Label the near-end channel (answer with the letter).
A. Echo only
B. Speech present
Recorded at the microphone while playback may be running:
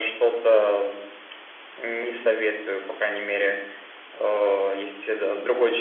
A